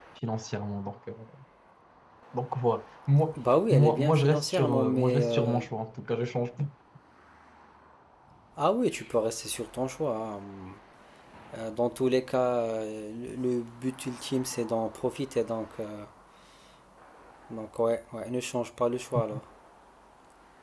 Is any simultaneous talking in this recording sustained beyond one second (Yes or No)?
Yes